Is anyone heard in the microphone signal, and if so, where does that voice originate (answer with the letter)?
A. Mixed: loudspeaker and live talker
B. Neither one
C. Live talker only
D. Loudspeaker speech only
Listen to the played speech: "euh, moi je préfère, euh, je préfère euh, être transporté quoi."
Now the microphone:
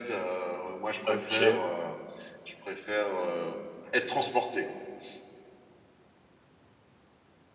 A